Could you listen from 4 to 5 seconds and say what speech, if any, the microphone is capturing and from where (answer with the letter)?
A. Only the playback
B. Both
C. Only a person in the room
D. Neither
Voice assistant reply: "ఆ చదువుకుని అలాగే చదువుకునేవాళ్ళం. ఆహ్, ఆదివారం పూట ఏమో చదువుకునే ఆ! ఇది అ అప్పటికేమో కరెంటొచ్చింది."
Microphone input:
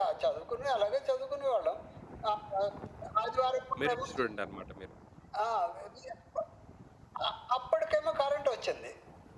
B